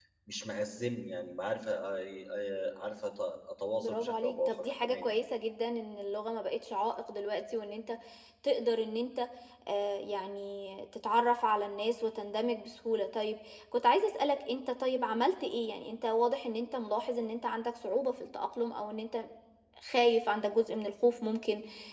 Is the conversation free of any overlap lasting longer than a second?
No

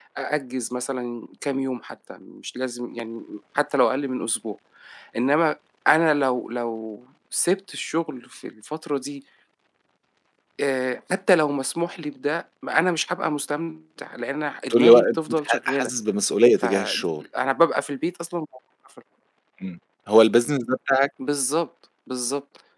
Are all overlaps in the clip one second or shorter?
No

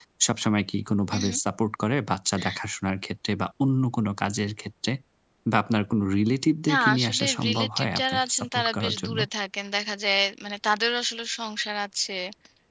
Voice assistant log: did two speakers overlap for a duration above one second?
Yes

